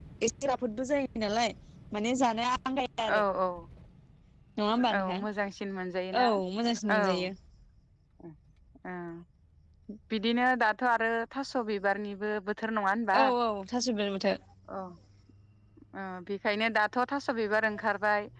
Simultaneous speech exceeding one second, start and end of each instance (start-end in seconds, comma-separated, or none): none